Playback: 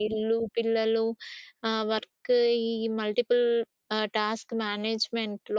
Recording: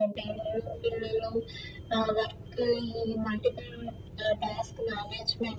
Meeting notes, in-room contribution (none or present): none